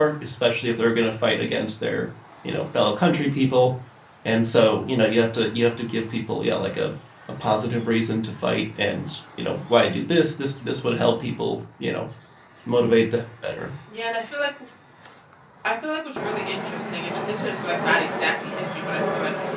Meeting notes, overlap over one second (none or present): none